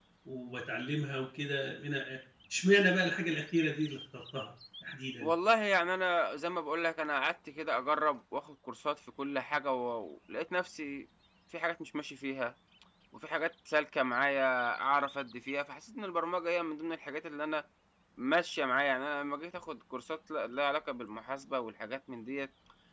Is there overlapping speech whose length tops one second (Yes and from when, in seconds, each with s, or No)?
No